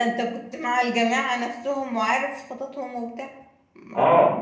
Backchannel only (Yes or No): No